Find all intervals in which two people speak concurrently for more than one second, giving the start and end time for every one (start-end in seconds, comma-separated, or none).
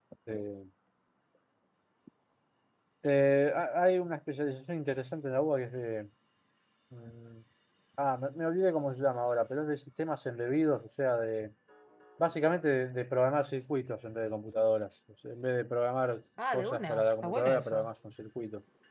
16.5-17.9